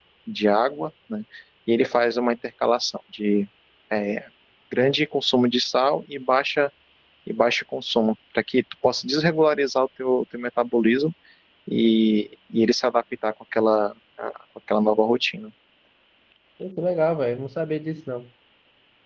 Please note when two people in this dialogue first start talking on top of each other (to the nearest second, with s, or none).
none